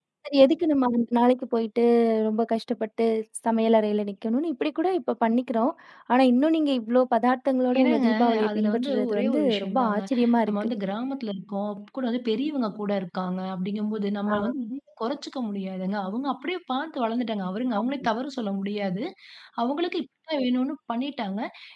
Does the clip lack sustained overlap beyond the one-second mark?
No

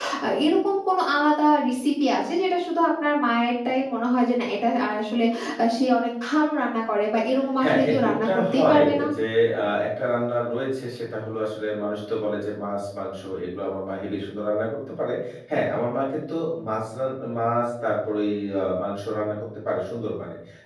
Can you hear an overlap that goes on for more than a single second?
Yes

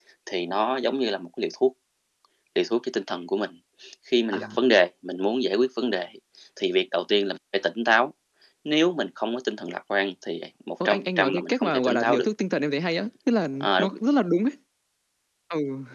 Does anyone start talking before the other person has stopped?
Yes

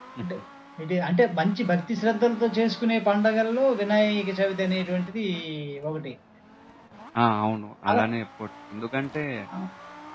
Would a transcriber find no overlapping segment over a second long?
Yes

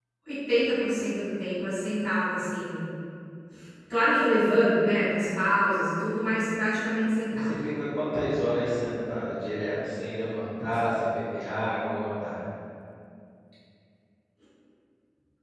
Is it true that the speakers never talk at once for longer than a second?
Yes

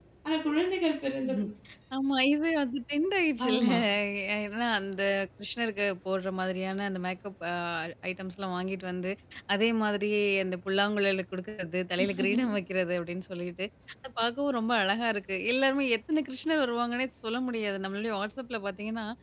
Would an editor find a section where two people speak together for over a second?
No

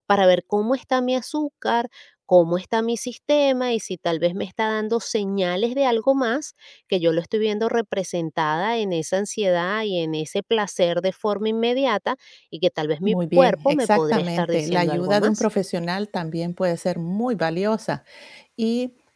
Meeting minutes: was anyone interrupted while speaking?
Yes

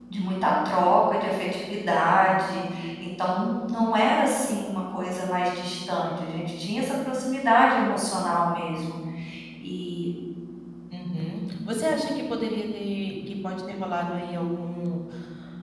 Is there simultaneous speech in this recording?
No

